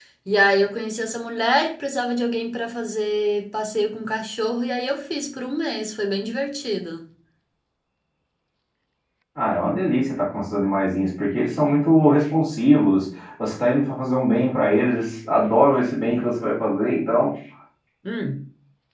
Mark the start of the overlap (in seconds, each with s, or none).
none